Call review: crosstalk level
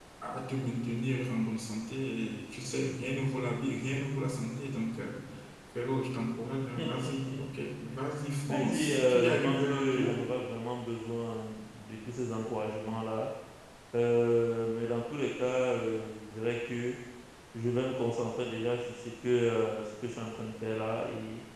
present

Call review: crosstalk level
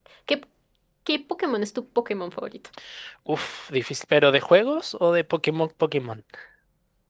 none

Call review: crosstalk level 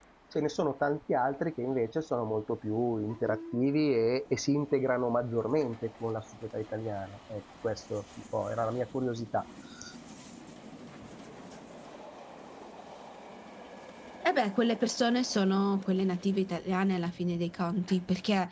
none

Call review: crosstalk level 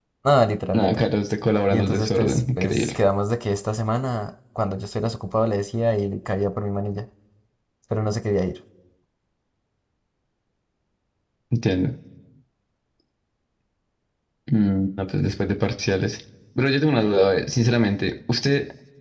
present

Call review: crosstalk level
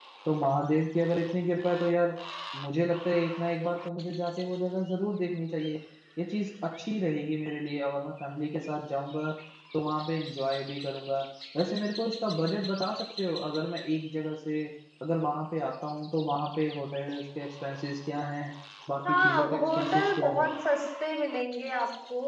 present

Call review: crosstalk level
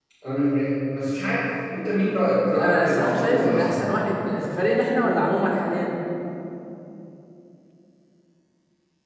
present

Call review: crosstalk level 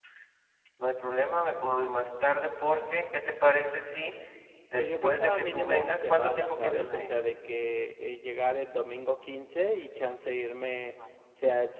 present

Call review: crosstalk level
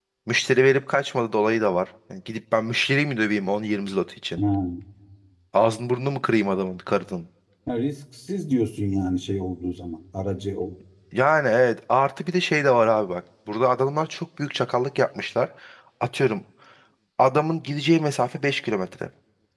none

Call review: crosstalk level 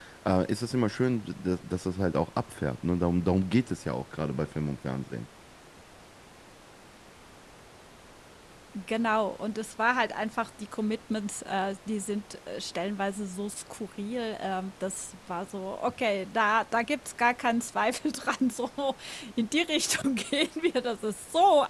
none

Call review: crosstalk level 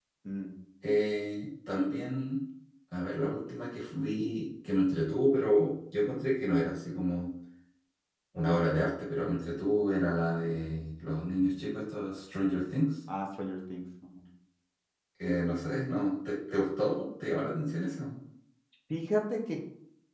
none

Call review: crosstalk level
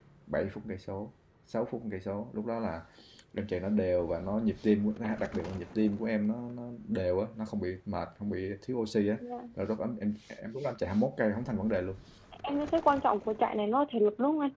none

